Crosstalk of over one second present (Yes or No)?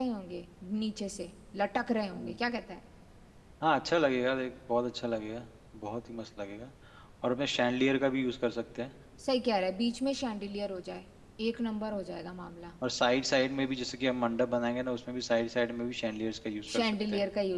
No